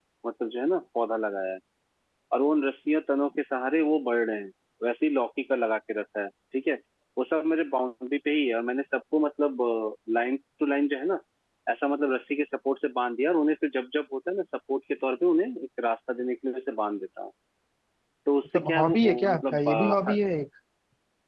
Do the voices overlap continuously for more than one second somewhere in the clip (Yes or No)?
Yes